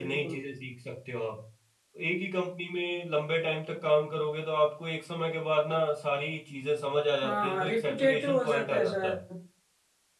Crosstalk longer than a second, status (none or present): present